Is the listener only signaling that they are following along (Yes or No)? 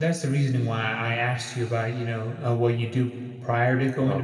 Yes